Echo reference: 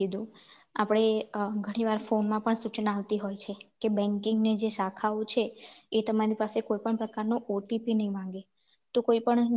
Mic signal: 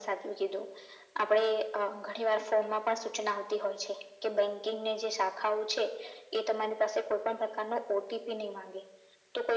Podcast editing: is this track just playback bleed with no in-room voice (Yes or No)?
Yes